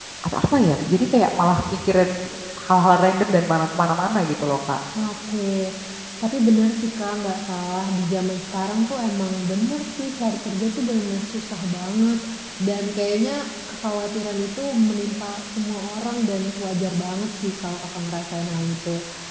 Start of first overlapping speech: none

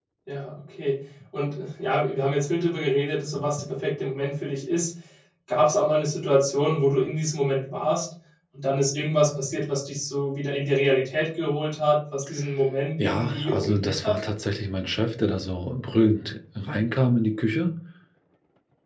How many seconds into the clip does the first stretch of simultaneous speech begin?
13.0 s

